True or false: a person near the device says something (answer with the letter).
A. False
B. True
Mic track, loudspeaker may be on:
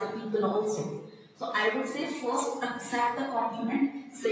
A